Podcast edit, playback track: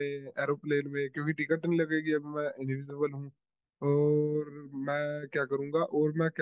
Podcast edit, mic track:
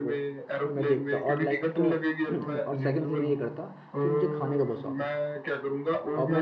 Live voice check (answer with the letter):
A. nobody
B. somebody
B